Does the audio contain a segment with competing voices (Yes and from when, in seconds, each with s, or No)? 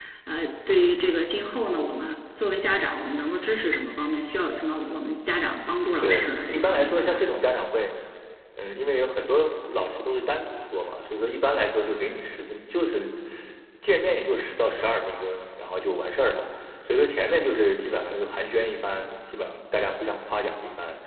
Yes, from 6.0 s